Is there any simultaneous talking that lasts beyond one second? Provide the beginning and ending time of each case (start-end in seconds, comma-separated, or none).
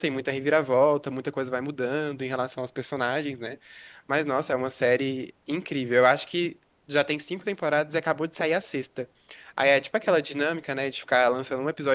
none